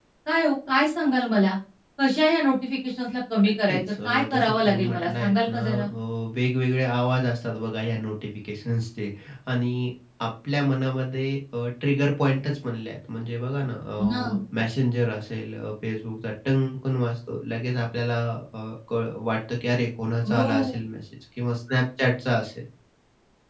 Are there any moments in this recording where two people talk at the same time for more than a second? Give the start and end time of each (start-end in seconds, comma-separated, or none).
3.6-5.8